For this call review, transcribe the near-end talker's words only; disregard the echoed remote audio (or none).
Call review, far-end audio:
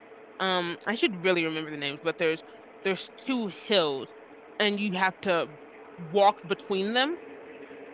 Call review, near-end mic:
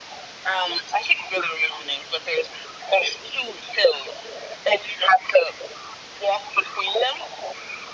none